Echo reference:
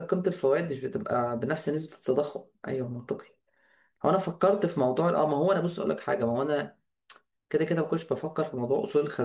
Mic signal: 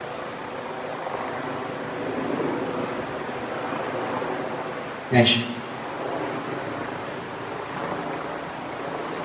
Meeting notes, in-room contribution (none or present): present